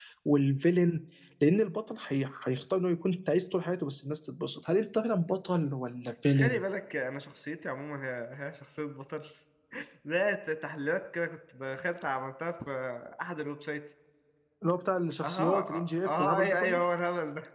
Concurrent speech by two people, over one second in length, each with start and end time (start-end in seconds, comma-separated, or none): 15.2-16.8